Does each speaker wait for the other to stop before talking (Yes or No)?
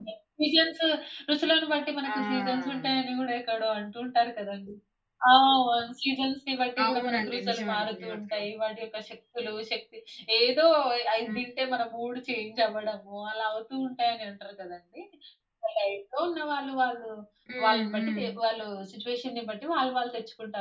No